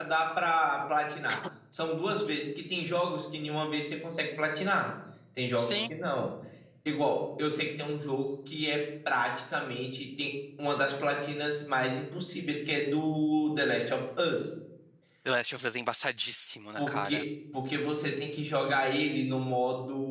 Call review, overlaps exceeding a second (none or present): none